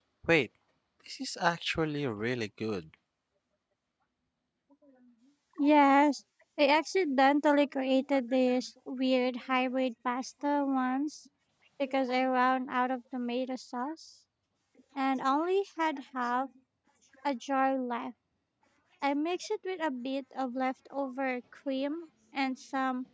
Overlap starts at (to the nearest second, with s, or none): none